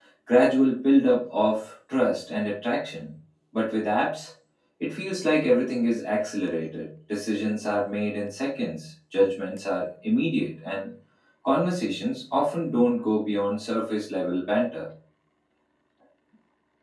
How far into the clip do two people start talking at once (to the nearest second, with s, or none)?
none